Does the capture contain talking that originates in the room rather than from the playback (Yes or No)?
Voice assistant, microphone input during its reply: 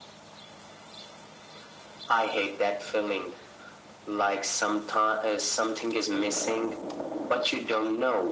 No